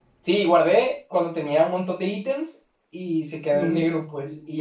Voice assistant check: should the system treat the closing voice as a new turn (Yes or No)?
No